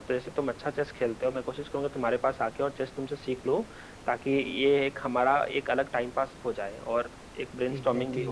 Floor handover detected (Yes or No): Yes